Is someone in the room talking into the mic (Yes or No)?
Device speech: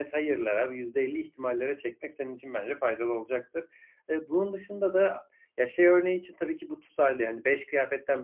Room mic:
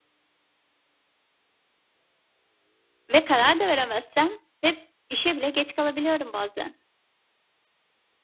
Yes